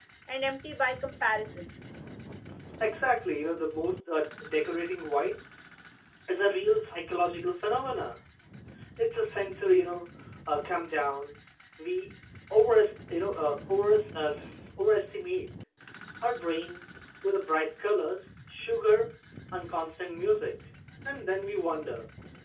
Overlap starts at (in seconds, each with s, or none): none